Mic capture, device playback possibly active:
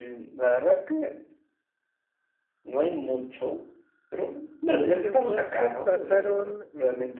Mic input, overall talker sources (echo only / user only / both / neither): both